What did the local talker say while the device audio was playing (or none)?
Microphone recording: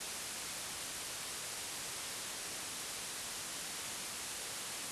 none